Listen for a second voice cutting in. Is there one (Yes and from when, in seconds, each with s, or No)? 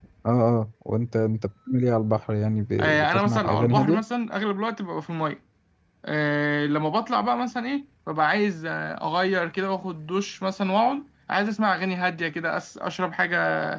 Yes, from 2.8 s